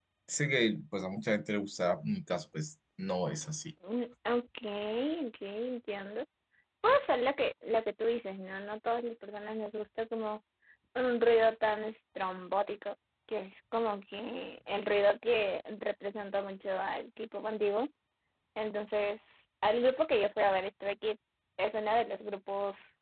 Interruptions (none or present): none